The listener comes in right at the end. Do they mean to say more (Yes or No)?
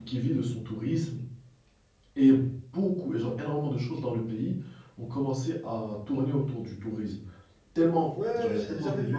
Yes